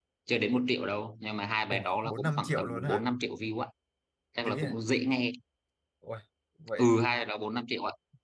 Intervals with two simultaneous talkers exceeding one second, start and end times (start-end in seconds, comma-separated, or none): 1.7-3.0